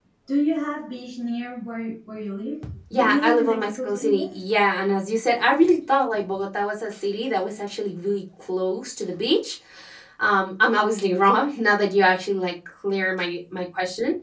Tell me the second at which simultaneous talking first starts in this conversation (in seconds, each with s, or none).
2.9 s